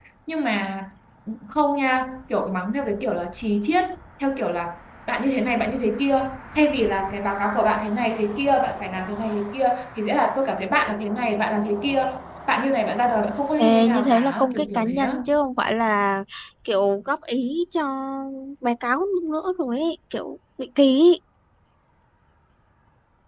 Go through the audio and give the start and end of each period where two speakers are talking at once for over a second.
13.6-15.2

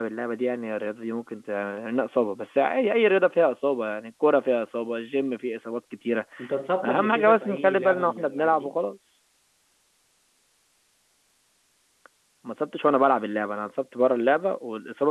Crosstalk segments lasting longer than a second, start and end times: 6.8-8.8

